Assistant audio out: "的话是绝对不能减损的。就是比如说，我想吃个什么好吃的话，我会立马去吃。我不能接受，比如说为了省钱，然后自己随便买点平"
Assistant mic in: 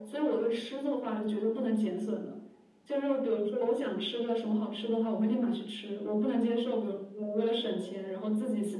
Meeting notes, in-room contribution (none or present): none